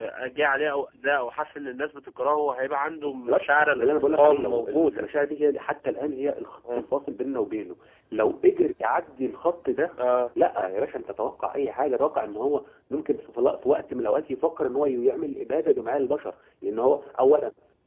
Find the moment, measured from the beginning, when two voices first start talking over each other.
3.0 s

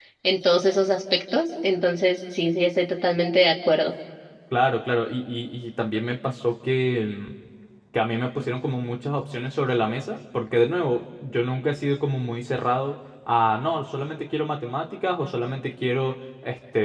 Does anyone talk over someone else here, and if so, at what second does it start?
none

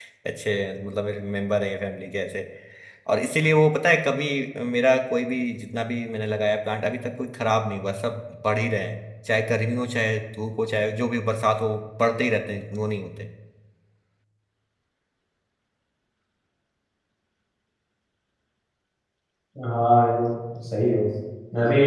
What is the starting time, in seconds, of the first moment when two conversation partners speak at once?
none

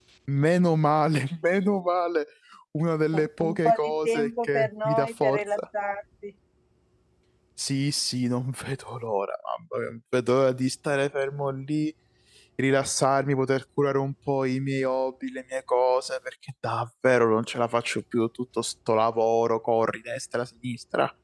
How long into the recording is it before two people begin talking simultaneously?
3.4 s

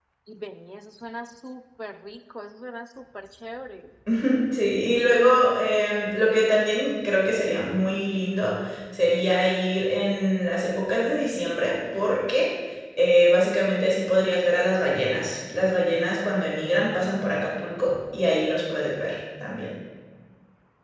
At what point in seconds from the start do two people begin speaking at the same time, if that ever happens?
none

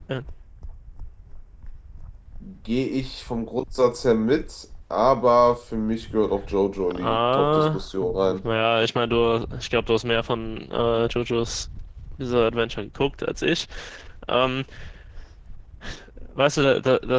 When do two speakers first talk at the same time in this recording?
6.9 s

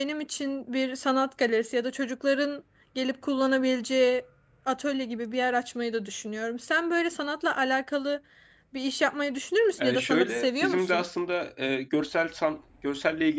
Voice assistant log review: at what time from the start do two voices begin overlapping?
9.8 s

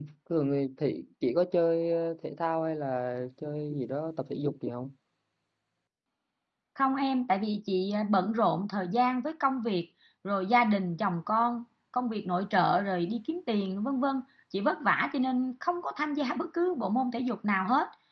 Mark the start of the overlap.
none

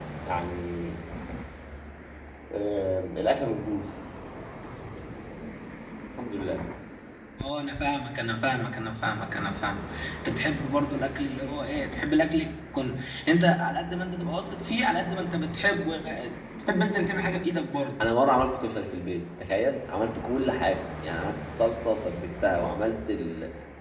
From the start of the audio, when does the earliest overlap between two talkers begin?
none

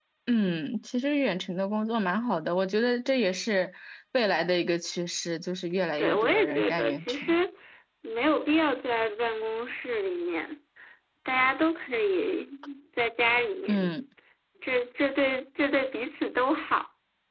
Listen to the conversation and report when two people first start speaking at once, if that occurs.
6.0 s

